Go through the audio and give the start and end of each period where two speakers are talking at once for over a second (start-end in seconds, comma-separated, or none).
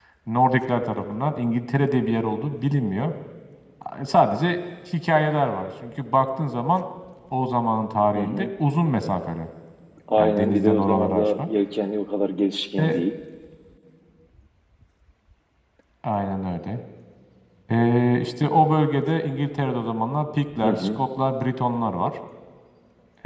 10.2-11.5